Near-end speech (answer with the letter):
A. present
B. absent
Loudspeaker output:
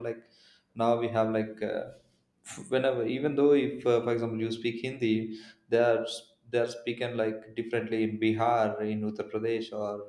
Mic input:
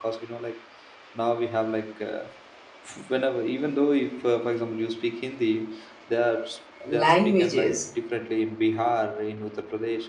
A